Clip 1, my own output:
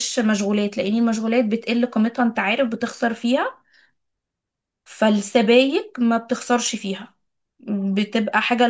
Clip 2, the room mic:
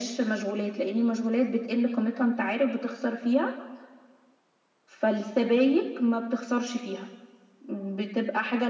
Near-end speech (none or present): none